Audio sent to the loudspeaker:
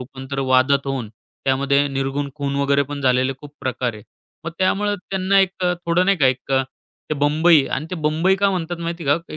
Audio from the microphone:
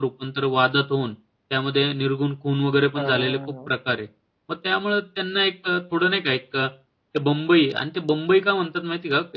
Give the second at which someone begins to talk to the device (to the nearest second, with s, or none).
3 s